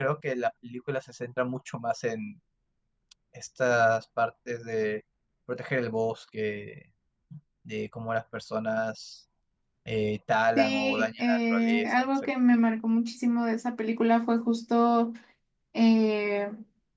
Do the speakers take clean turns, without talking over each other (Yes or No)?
No